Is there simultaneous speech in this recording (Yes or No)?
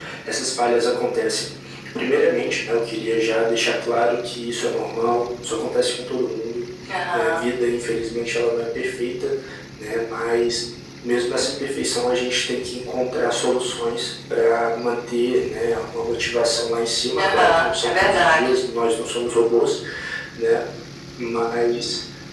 Yes